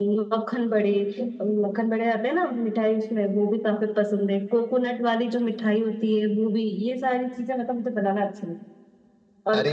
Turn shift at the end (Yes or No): No